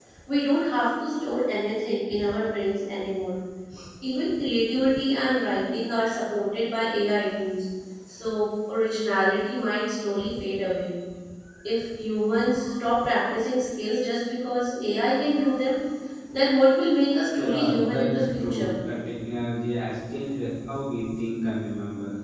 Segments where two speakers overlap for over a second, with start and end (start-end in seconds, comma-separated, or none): 17.4-18.8